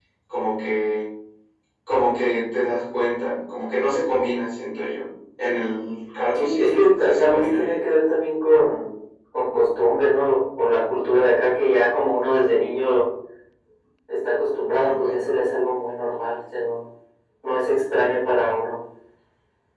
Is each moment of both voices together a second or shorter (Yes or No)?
No